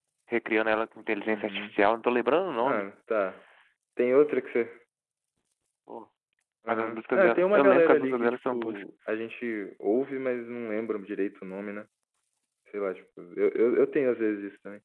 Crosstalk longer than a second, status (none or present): present